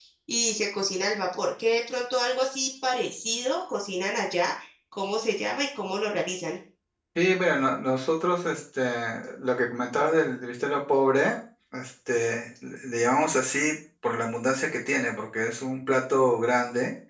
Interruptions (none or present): none